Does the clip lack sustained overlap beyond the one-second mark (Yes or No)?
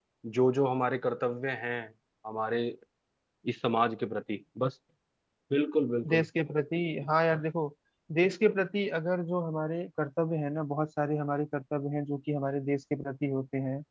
Yes